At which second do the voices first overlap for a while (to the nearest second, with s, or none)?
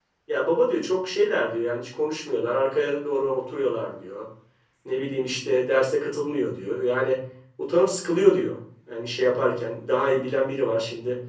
none